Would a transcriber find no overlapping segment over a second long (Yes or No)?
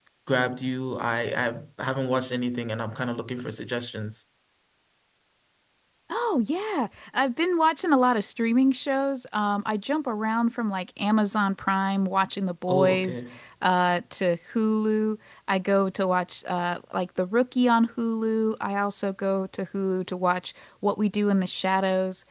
Yes